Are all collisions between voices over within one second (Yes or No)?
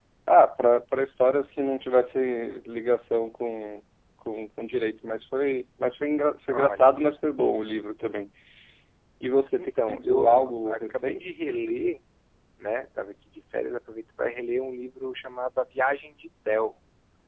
No